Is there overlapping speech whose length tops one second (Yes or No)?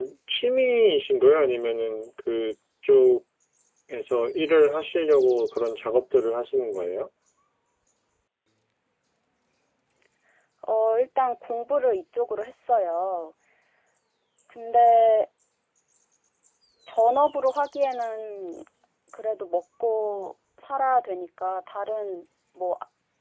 No